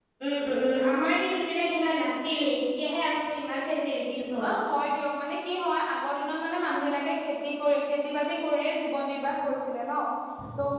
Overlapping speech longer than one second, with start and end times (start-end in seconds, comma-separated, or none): none